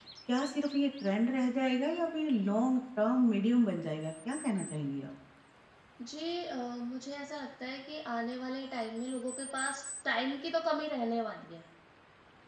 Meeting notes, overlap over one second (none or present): none